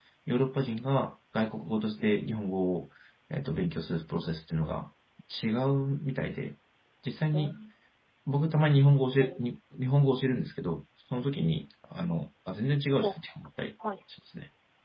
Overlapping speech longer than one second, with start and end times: none

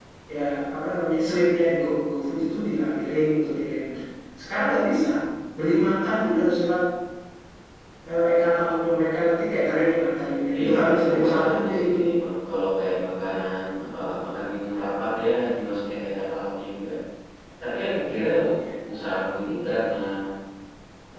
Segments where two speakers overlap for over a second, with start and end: 10.5-12.2

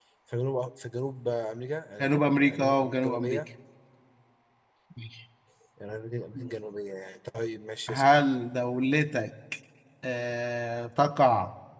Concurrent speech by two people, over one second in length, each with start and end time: 2.0-3.5

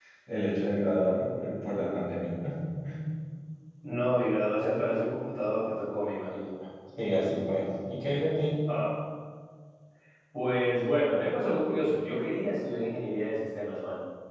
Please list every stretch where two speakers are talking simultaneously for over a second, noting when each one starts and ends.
none

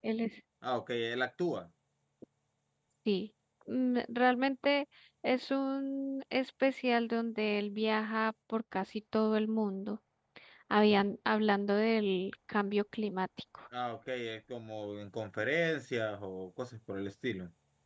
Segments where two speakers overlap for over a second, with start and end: none

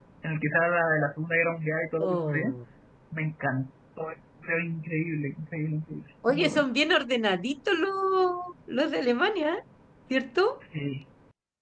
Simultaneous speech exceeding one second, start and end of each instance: none

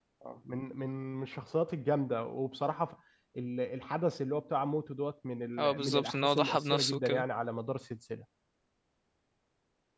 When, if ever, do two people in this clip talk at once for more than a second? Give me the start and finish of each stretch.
5.6-7.2

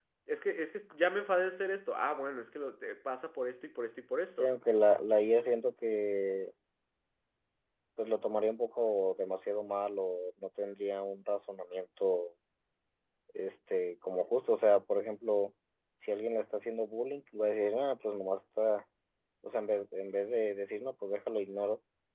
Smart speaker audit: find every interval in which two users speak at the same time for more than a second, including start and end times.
none

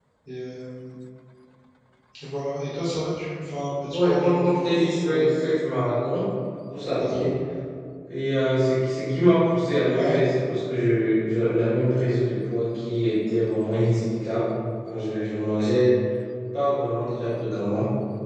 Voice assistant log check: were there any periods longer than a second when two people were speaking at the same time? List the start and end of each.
3.9-5.3

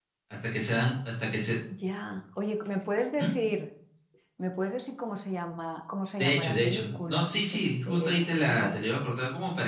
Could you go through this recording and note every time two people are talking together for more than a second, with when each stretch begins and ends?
6.2-8.7

